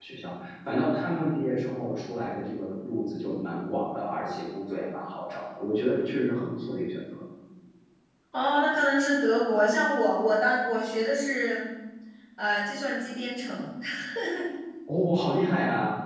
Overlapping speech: No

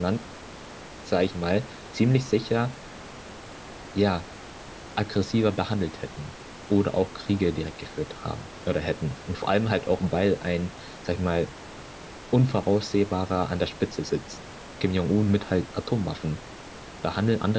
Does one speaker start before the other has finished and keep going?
No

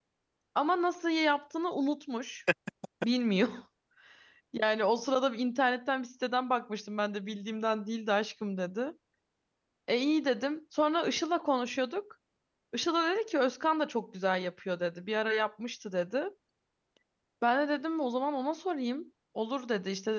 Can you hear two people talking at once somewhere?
No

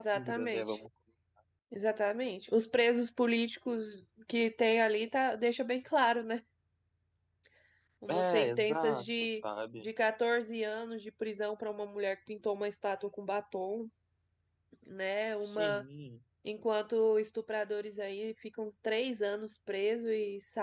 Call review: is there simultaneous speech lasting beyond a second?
Yes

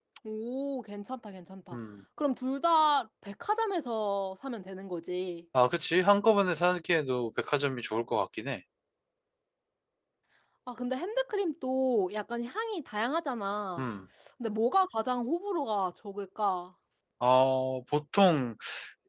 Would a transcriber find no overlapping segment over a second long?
Yes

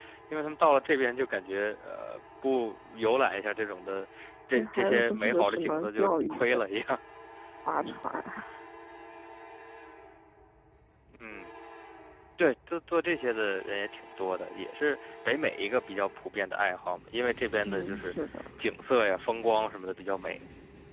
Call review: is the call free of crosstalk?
No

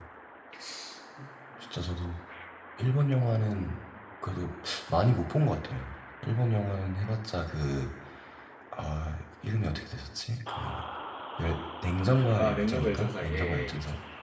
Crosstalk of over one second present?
Yes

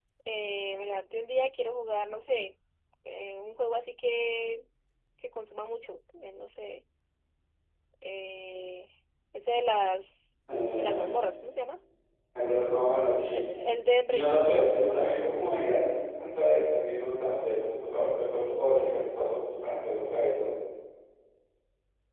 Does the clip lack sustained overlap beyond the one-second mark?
Yes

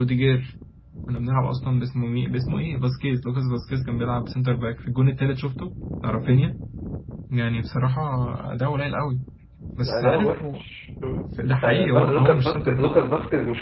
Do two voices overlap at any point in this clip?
Yes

